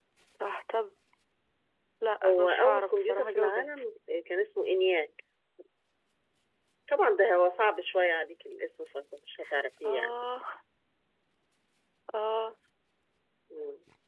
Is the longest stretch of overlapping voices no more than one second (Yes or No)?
No